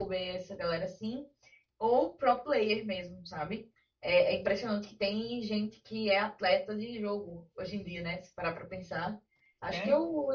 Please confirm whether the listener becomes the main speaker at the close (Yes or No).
No